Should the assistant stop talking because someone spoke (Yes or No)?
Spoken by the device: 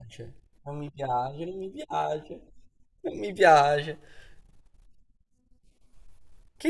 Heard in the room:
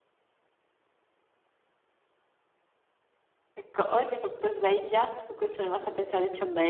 Yes